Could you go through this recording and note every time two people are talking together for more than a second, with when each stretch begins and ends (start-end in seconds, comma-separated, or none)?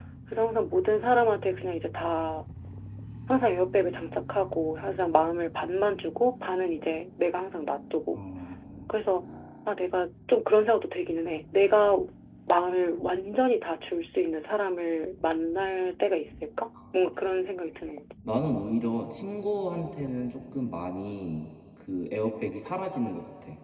none